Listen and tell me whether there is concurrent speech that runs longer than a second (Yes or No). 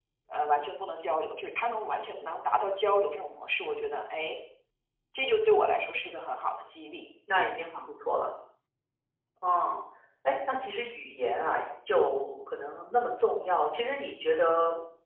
No